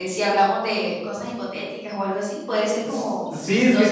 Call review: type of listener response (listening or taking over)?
taking over